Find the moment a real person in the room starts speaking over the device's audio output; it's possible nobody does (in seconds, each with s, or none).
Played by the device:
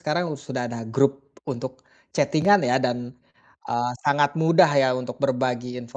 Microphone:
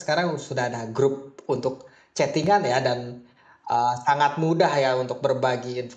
none